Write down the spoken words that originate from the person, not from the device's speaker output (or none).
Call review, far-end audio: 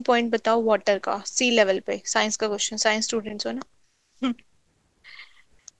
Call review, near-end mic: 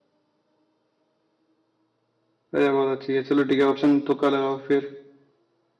अरे बहुत अच्छी है चलो ठीक है ऑप्शन तुक्का लगाओ फिर